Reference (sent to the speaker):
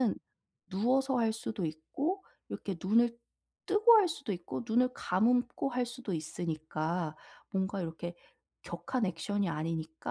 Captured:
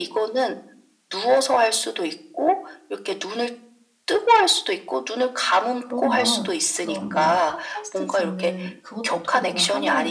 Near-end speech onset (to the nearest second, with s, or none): 6 s